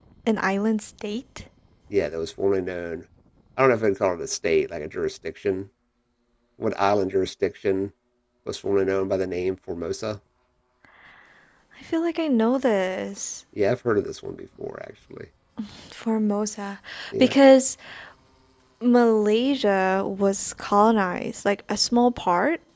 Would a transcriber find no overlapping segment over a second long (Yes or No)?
Yes